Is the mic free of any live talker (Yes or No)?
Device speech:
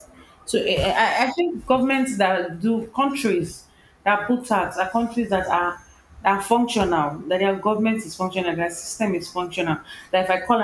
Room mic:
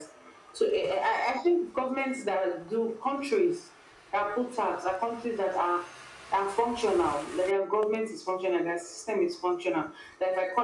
Yes